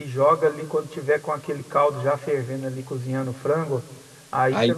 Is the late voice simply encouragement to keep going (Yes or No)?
Yes